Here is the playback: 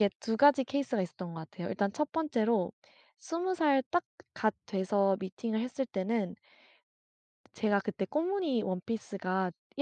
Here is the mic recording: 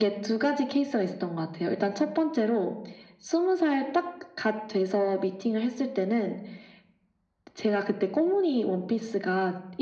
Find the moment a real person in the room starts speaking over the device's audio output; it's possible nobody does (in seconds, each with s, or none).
none